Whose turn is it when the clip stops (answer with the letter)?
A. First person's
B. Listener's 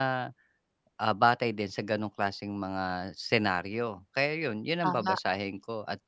A